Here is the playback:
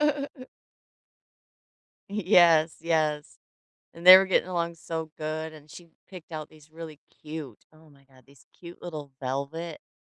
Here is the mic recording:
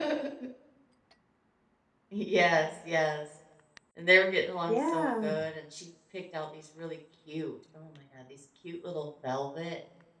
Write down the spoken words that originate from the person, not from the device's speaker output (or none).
Yeah.